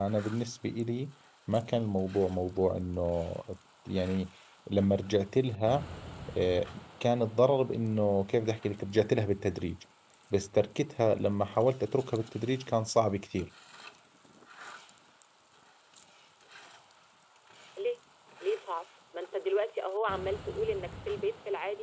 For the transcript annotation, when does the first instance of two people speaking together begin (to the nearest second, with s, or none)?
none